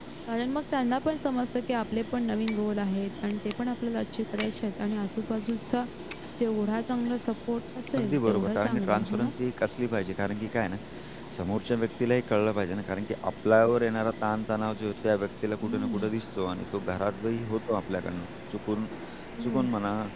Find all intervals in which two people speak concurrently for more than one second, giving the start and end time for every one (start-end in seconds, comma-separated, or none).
8.0-9.3